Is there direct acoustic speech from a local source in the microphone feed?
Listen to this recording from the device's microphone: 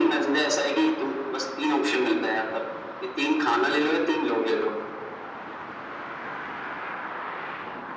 No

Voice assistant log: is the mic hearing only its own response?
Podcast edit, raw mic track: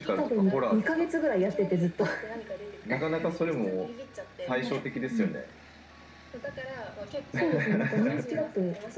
No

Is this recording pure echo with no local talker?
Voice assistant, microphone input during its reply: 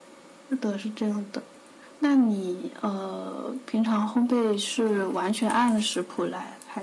Yes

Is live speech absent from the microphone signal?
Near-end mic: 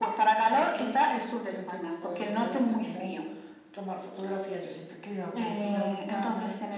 Yes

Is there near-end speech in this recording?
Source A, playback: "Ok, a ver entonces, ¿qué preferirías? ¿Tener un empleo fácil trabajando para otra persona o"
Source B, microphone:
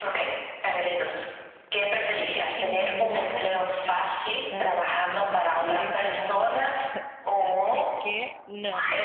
Yes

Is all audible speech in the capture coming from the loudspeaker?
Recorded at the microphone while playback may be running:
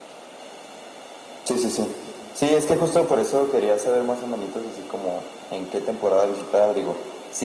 Yes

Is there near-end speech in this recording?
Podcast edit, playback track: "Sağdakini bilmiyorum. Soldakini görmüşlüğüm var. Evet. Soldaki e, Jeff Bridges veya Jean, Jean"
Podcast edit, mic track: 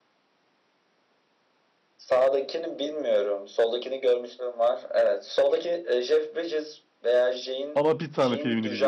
Yes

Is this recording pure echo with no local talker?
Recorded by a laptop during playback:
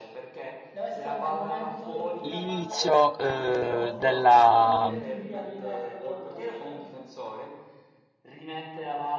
No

